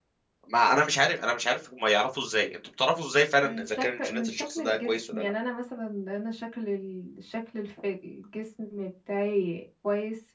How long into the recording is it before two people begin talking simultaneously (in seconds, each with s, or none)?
3.4 s